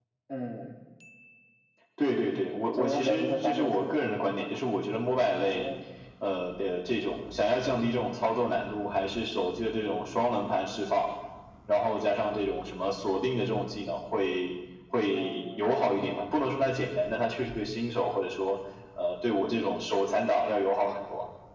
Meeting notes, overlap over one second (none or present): present